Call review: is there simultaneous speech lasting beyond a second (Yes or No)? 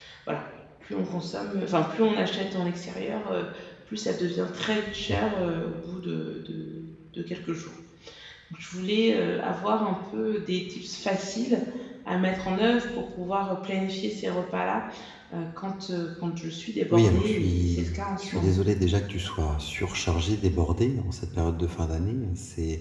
Yes